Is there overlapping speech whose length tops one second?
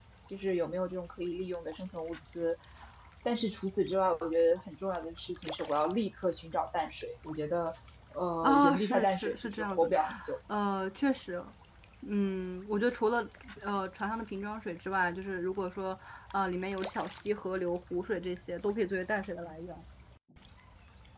Yes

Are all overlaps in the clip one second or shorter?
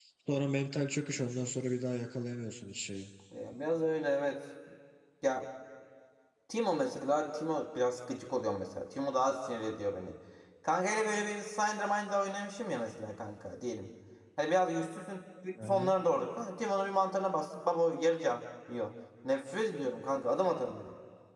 Yes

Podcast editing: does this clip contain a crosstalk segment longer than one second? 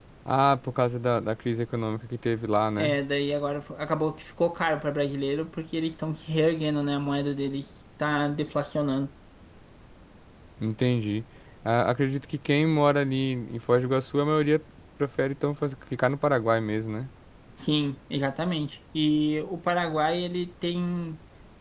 No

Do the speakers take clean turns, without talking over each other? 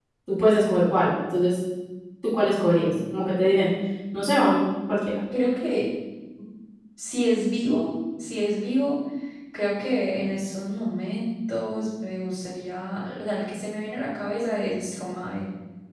Yes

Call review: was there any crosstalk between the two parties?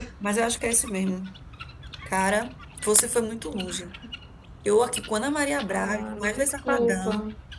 Yes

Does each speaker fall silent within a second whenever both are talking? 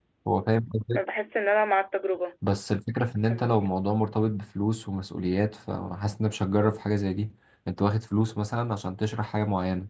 Yes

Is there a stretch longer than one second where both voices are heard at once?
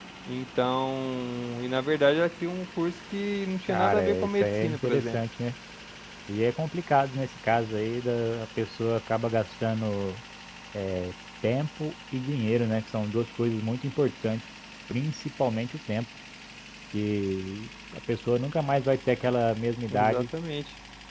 Yes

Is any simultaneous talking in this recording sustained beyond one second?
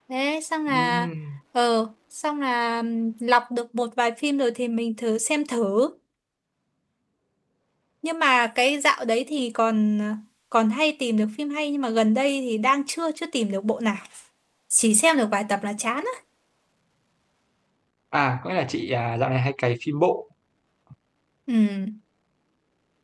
No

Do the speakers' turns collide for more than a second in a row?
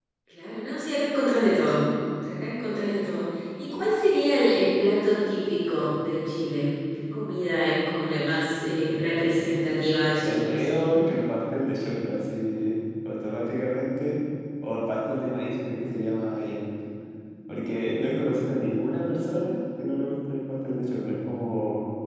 No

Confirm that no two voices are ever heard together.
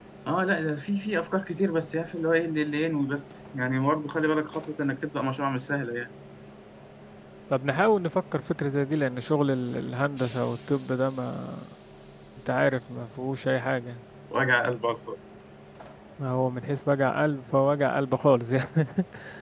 Yes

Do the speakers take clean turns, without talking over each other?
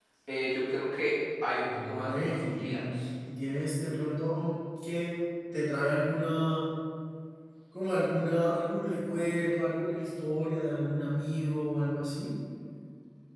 No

